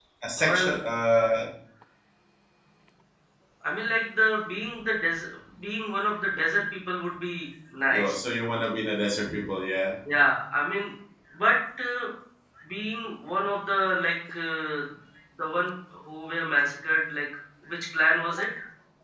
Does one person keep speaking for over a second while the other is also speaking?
No

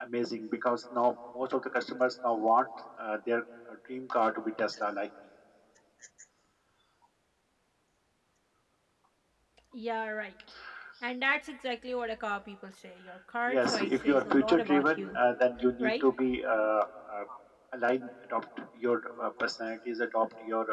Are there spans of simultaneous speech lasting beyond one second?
Yes, from 13.5 s

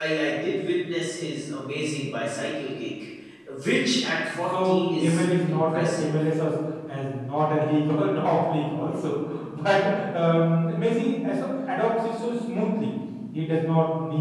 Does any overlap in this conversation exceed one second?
Yes, from 4.3 s

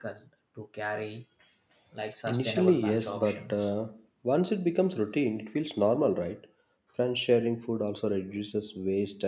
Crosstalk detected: Yes, from 2.3 s

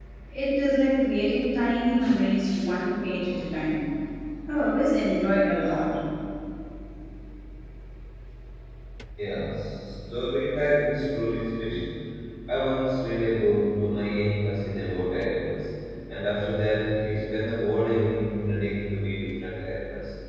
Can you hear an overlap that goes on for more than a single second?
No

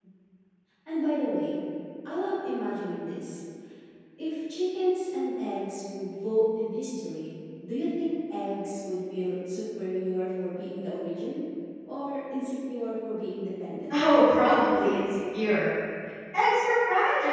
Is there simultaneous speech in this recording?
No

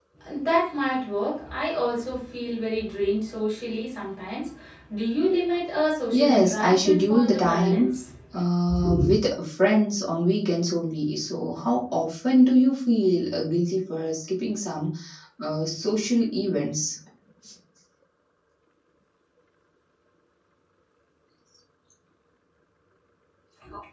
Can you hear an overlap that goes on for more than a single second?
Yes, from 6.1 s

